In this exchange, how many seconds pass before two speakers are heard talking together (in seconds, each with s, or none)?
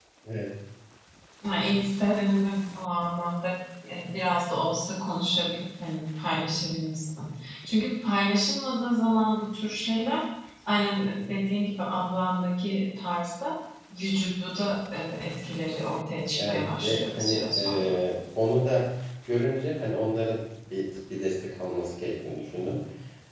16.4 s